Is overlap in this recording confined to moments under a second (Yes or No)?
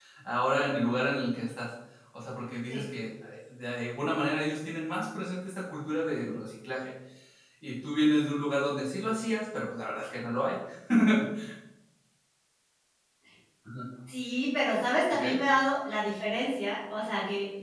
Yes